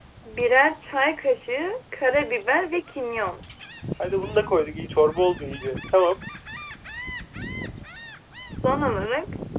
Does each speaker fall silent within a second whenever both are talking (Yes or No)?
Yes